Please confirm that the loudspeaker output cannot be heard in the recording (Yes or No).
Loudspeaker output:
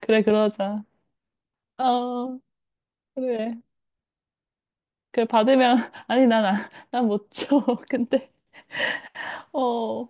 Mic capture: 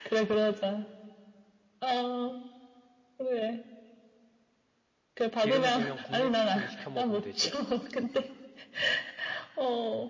No